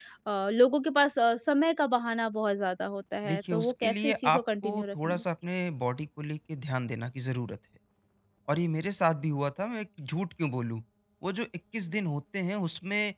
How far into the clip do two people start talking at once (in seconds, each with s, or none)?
3.2 s